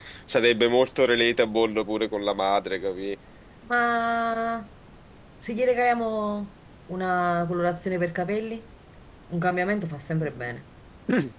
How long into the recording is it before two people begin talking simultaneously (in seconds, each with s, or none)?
none